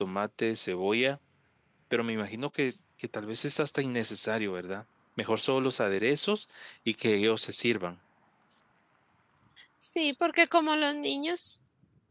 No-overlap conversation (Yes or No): Yes